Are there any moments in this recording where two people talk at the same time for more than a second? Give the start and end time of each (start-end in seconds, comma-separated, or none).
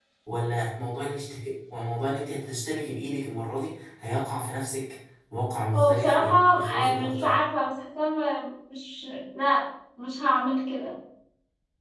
5.7-7.3